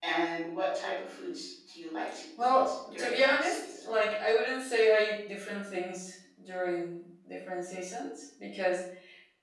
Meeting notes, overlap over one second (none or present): present